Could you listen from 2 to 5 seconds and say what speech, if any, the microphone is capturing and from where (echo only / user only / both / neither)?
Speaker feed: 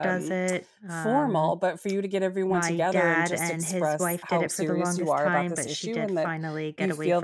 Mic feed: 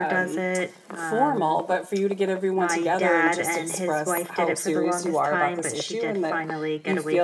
echo only